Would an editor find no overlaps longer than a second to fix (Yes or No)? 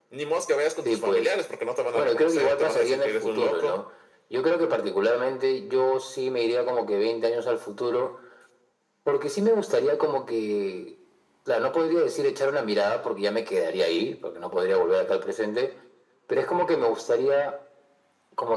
No